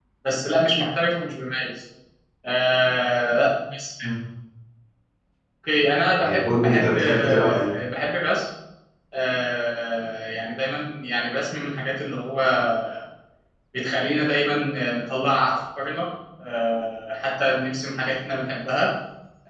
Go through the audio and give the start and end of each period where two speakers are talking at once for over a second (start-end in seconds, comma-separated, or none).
6.2-7.7